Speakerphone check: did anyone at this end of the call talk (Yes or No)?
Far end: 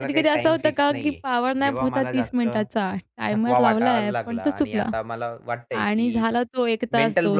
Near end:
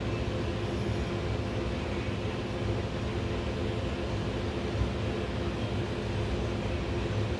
No